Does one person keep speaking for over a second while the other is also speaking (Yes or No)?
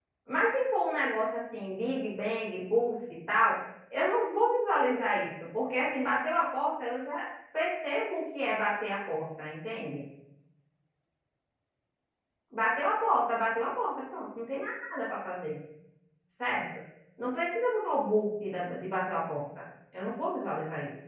No